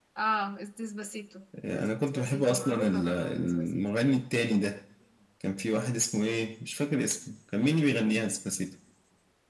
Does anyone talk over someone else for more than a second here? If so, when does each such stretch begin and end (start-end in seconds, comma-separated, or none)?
1.6-3.8